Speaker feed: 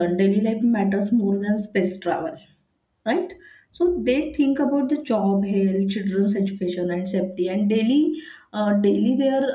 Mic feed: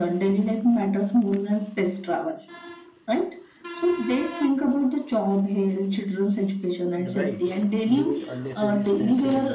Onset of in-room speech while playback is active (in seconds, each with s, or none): 6.9 s